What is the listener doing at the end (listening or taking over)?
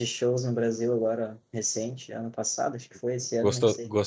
taking over